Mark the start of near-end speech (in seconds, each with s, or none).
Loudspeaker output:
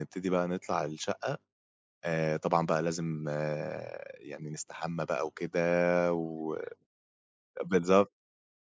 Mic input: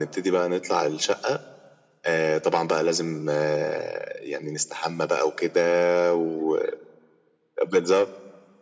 none